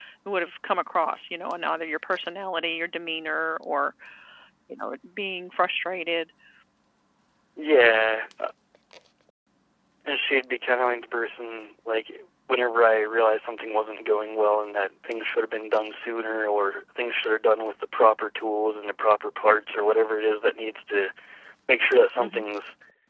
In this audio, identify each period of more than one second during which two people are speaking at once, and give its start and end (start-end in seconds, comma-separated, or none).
none